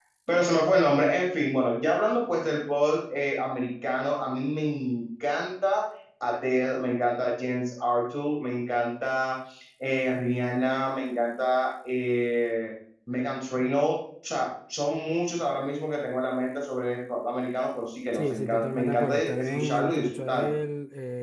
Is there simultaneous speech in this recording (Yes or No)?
Yes